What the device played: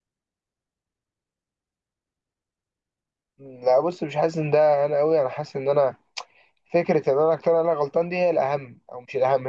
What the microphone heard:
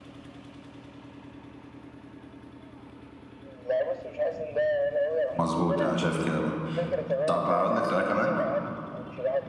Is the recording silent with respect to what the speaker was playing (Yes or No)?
No